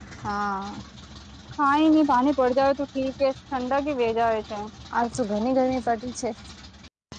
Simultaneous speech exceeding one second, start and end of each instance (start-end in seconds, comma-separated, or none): none